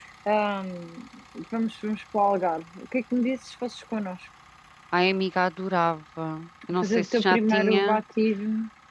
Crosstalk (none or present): present